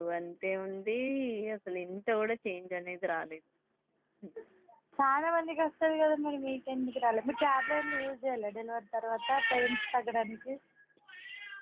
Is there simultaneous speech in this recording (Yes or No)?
No